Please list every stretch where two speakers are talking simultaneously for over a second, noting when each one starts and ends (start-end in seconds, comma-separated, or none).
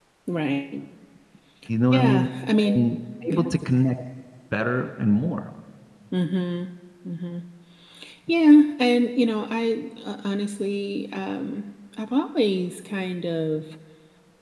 none